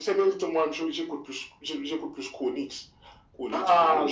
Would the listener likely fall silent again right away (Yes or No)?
No